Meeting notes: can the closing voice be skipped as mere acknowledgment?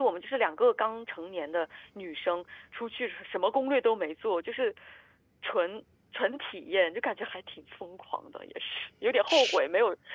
Yes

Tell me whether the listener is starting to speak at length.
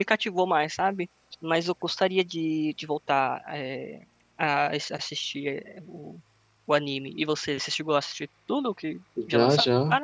Yes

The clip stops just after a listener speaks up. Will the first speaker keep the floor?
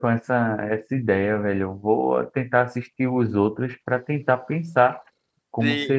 No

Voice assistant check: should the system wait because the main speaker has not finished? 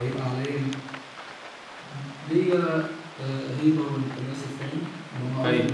Yes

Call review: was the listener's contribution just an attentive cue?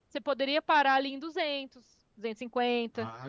No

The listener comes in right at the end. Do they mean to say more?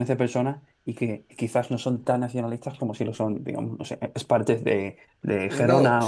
Yes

